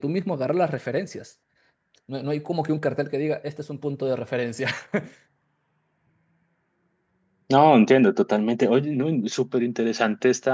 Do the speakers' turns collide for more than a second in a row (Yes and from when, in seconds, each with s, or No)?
No